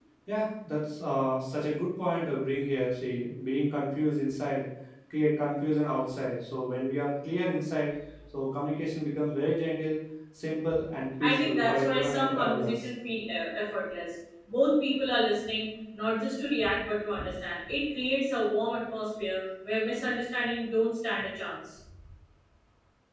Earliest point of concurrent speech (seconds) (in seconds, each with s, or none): 11.2 s